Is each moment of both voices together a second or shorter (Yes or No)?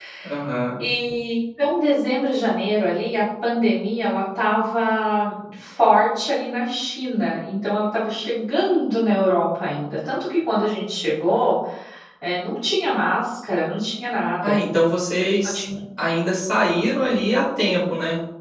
Yes